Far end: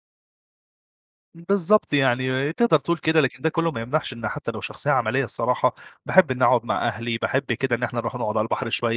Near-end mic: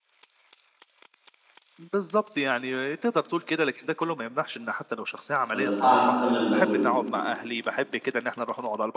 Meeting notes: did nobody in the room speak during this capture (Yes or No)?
No